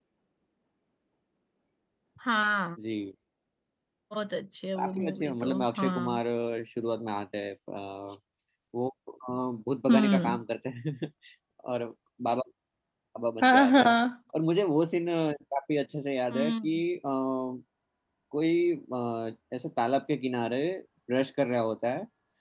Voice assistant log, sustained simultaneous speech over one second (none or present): present